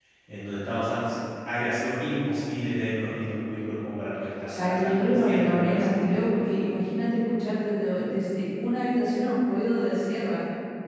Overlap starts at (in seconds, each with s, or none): 4.5 s